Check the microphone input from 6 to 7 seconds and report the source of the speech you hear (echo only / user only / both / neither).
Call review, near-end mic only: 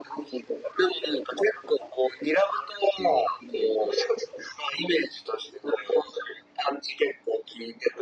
echo only